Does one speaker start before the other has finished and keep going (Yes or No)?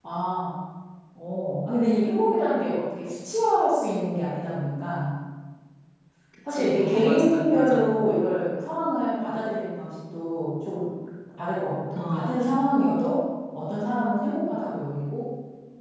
Yes